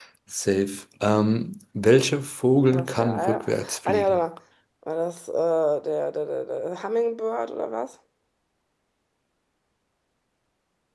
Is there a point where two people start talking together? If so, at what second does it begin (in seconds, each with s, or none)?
2.7 s